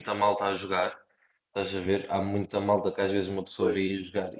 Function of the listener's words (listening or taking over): listening